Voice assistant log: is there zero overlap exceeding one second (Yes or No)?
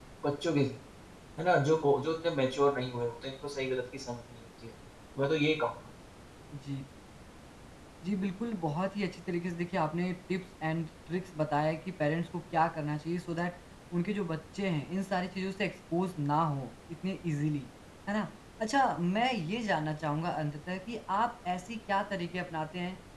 Yes